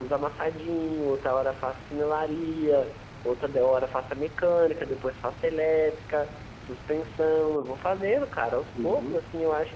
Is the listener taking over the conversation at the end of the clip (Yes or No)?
No